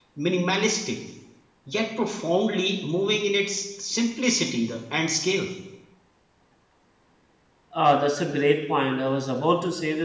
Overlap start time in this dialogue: none

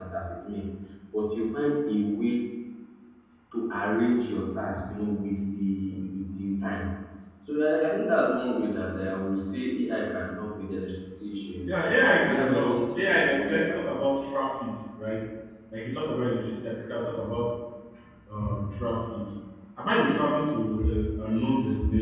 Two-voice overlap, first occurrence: 12 s

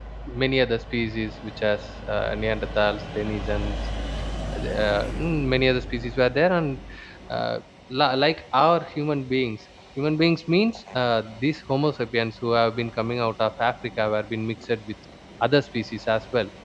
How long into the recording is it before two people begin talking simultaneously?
none

